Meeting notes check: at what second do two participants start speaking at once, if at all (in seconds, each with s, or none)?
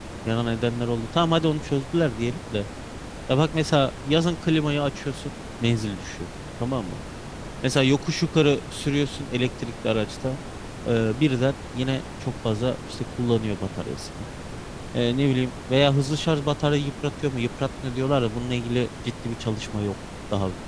none